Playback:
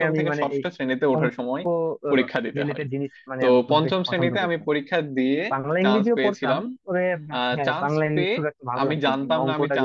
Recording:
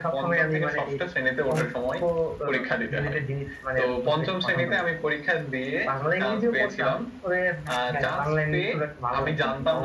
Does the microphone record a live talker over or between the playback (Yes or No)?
No